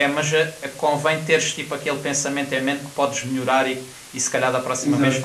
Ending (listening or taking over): listening